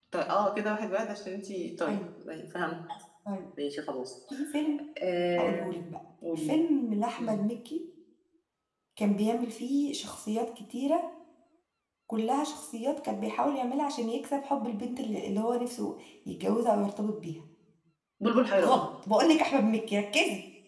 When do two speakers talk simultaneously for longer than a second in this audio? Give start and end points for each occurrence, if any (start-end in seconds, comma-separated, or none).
none